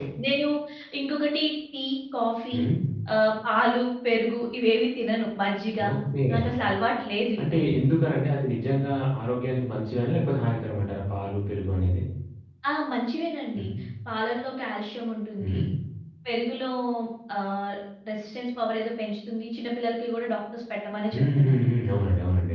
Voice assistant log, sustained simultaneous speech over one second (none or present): none